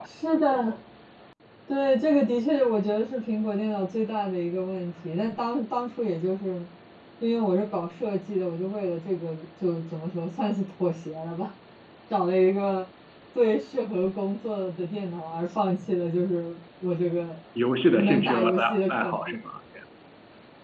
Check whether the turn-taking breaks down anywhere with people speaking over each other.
Yes, from 17.9 s

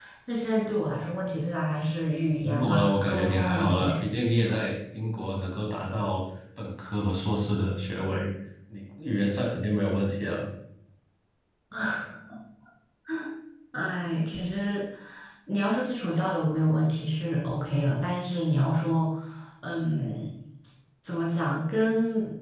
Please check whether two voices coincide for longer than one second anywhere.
Yes, from 2.4 s

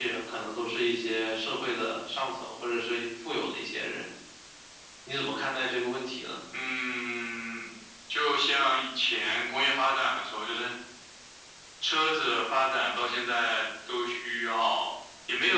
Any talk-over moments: No

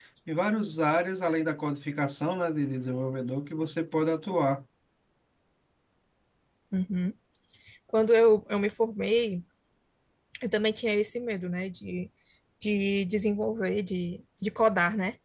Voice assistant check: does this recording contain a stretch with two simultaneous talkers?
No

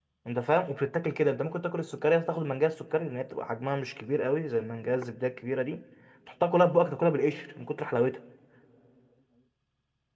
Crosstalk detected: No

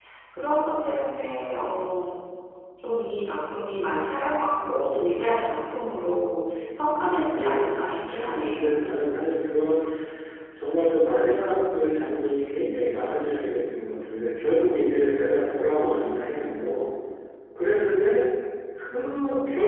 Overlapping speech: Yes, from 7.4 s

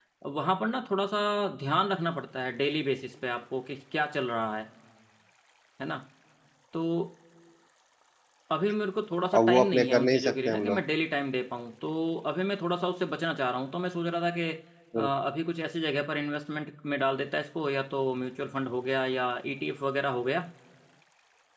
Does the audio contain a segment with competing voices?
Yes, from 9.3 s

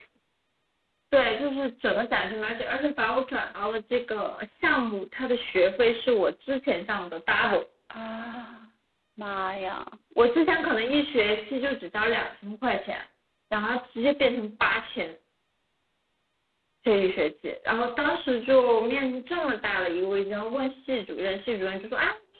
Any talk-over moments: No

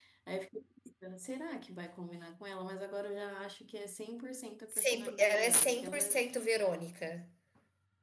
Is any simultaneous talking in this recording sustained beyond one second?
Yes, from 4.7 s

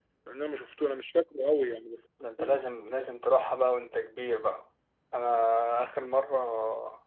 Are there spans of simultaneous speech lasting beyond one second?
No

